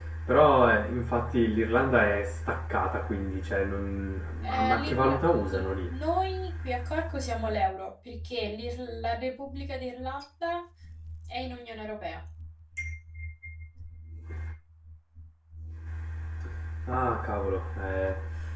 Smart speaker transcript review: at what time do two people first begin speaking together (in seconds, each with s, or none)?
4.4 s